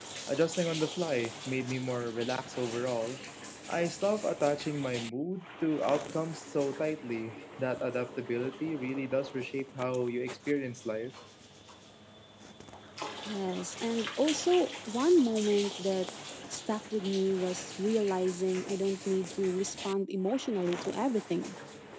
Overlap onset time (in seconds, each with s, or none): none